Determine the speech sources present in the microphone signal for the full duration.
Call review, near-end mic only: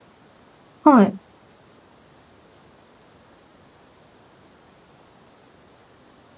user only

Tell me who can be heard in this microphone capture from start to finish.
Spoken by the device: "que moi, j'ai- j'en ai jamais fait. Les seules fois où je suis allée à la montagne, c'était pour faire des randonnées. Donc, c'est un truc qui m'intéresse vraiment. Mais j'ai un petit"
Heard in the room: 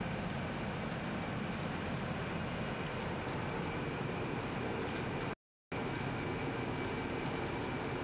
neither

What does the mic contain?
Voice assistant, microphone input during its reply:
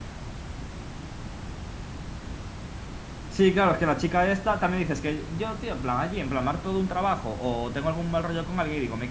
user only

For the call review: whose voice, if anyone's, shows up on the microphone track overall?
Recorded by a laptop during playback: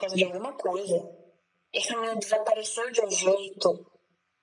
echo only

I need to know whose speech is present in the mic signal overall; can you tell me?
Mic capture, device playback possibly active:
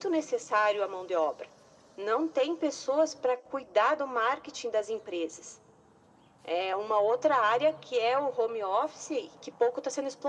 echo only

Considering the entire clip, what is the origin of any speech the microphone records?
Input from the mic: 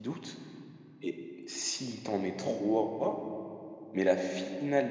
user only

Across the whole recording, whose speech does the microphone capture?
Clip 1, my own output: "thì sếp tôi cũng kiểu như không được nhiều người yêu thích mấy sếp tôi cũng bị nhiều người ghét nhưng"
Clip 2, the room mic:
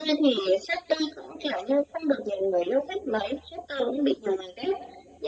echo only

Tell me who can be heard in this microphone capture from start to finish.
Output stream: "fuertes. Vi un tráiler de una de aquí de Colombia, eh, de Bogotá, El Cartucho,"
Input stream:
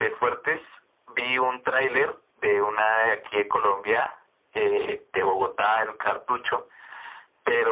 echo only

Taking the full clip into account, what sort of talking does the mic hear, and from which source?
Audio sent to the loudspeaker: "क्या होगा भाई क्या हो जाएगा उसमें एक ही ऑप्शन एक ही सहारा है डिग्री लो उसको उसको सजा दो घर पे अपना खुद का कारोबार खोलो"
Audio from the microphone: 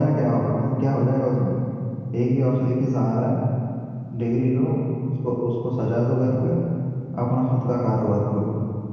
echo only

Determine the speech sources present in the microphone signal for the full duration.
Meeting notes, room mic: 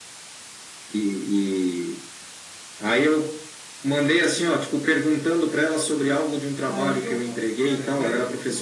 both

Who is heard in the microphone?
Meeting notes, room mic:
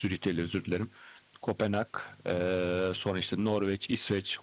user only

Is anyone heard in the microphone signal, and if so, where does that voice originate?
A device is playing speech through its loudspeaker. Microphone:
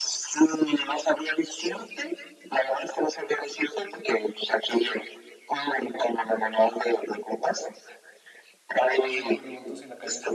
both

